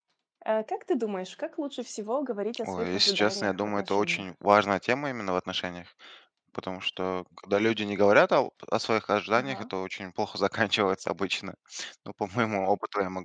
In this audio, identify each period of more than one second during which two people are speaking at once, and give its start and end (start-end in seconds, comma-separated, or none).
2.6-4.2